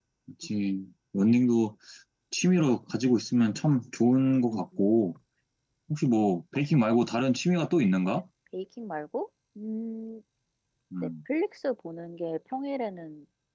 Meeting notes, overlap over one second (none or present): none